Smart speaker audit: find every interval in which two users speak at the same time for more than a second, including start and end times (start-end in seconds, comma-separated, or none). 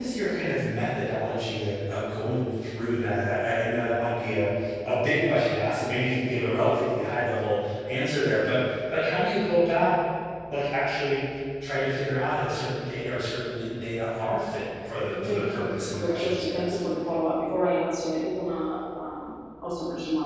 15.0-16.9